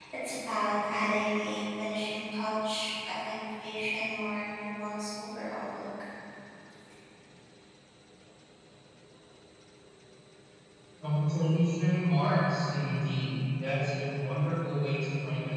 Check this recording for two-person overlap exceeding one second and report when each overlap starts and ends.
none

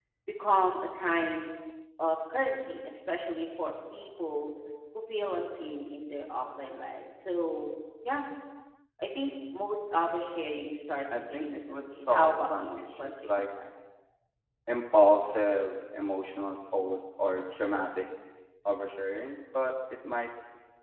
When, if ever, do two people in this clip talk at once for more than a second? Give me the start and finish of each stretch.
11.1-13.4

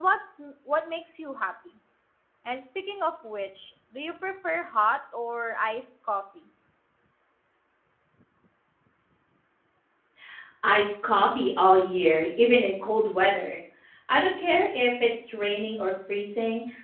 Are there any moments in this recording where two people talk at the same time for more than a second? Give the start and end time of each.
none

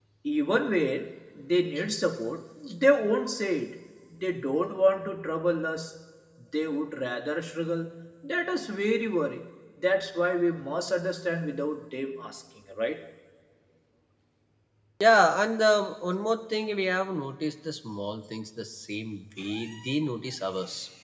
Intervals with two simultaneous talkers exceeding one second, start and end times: none

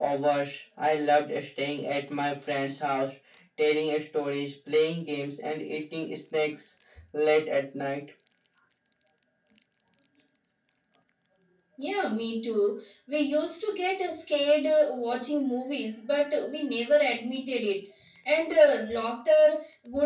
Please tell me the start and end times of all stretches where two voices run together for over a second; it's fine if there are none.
none

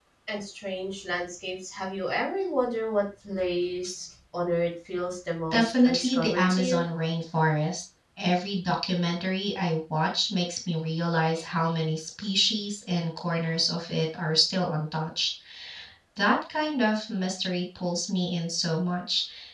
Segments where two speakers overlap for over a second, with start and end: 5.5-6.8

